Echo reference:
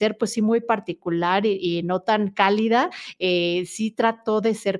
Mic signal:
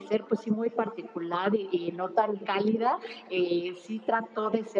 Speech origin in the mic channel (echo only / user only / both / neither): echo only